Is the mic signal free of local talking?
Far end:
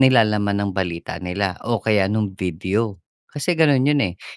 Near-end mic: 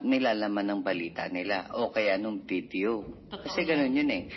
No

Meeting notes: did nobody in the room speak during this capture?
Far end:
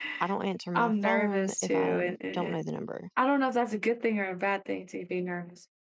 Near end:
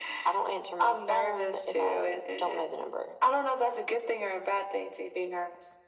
Yes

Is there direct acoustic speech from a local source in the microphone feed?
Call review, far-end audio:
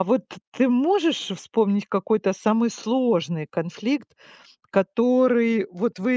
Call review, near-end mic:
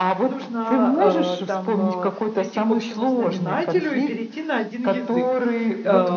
Yes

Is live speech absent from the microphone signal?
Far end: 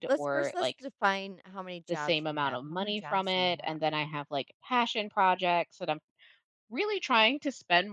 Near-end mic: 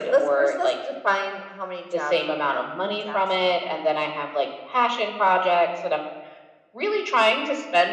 Yes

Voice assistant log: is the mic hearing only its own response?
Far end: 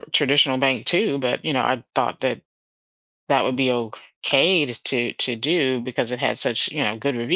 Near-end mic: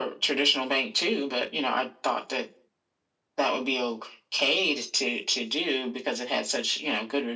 Yes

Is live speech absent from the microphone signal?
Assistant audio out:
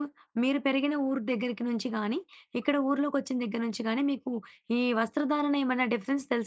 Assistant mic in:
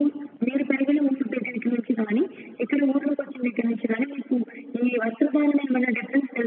Yes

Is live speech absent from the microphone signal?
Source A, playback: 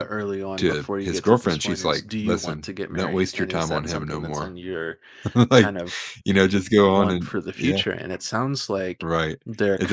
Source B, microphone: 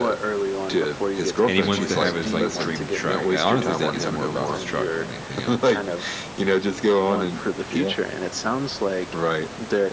No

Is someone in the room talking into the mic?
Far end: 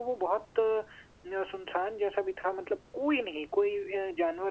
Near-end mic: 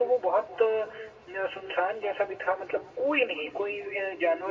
No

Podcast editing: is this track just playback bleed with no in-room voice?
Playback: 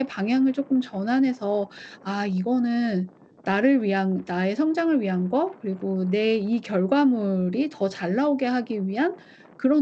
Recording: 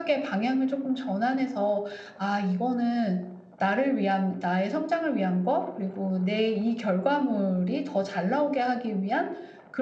Yes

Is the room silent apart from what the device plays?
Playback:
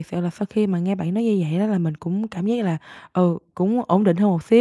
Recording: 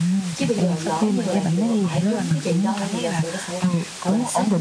No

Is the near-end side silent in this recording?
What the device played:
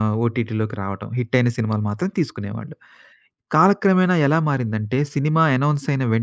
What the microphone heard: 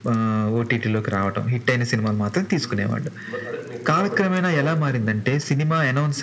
No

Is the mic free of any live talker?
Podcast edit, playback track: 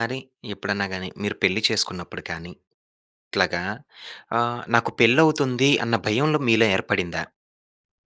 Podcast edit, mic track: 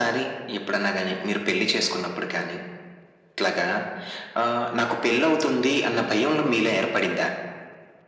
Yes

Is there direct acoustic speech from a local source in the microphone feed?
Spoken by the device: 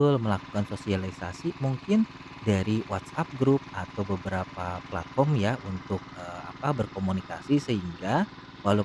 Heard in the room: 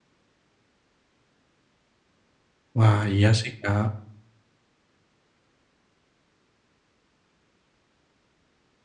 Yes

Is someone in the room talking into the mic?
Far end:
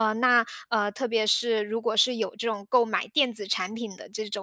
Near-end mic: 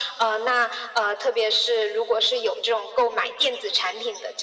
No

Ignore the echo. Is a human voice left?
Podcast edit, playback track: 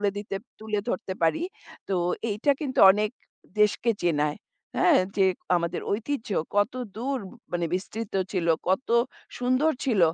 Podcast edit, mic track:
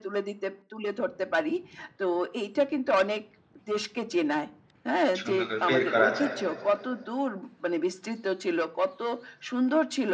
Yes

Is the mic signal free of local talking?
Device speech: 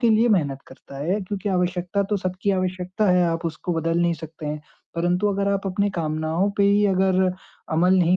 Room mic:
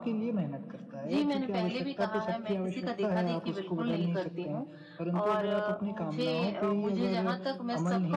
No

